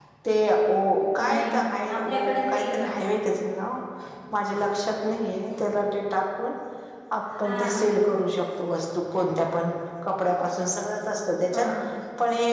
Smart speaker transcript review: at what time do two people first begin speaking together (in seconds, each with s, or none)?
1.3 s